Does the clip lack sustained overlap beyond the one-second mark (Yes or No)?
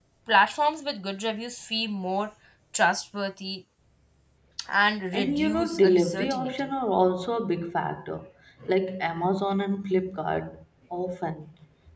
No